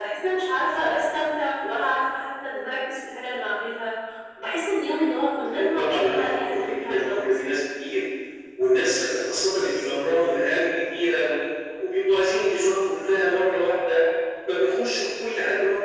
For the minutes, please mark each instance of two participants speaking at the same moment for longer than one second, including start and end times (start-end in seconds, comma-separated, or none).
4.8-7.4